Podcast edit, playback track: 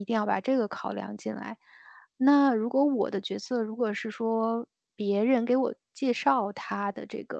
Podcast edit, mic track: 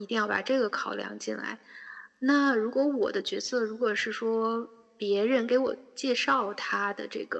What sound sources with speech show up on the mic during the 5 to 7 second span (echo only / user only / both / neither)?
echo only